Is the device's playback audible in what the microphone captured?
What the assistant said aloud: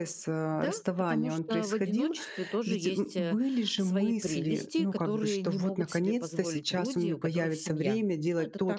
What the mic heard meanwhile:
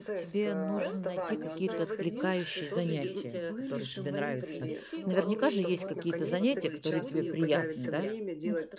Yes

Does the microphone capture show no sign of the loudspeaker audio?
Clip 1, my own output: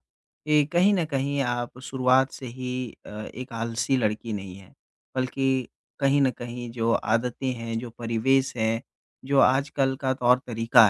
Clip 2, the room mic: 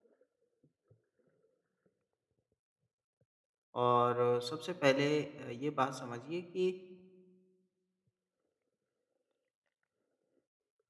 Yes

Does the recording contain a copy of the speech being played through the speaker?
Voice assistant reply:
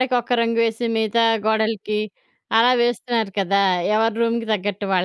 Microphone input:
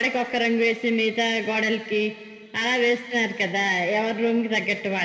Yes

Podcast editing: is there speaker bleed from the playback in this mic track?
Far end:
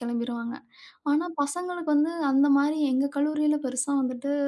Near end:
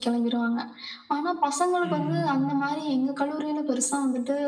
Yes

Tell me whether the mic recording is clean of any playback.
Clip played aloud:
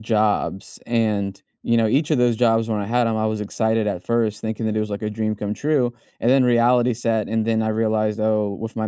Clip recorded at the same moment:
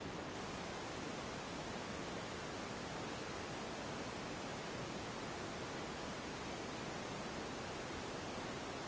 Yes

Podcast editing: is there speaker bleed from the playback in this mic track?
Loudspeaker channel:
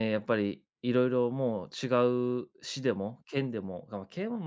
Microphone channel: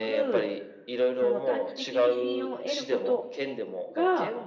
Yes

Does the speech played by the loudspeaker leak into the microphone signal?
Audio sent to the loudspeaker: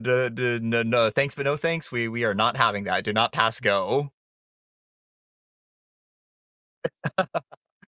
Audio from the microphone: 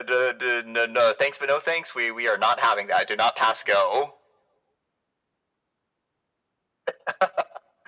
Yes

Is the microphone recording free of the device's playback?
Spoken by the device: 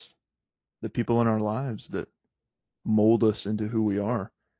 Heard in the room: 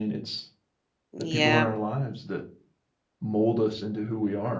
No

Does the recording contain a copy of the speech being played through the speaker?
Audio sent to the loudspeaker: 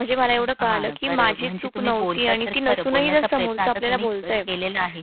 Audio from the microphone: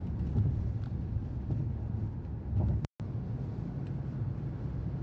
No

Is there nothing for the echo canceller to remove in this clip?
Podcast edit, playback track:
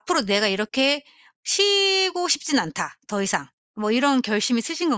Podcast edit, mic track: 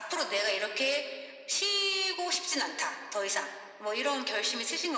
No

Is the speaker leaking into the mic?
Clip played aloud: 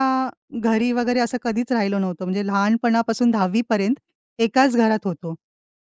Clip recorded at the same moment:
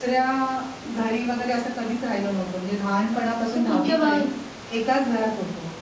Yes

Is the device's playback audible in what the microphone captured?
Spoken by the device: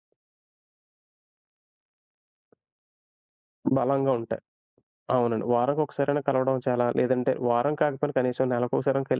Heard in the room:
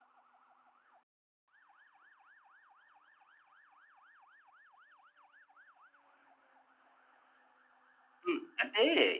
No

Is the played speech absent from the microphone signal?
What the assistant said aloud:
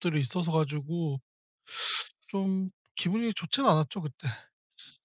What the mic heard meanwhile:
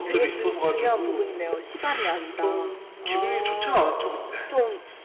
No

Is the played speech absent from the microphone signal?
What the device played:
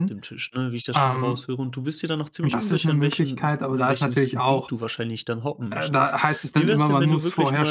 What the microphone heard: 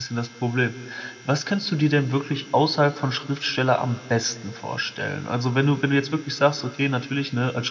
Yes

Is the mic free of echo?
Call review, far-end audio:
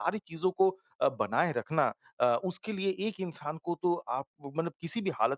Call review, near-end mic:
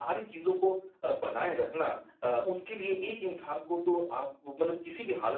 No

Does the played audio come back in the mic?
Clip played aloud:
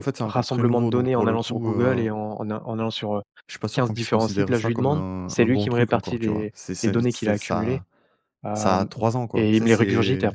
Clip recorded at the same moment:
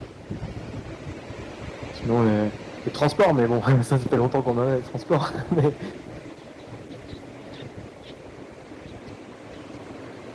No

